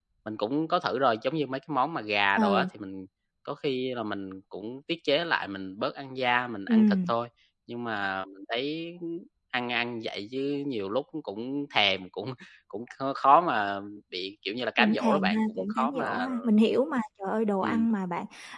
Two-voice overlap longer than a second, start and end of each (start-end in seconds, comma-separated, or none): 14.8-16.3